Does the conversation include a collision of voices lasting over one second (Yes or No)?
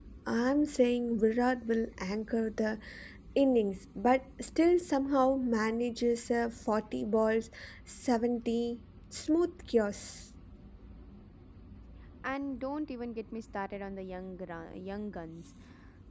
No